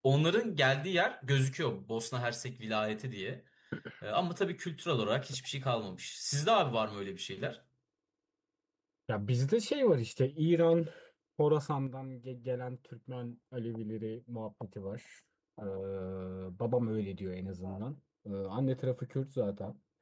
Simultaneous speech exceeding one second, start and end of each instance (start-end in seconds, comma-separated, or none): none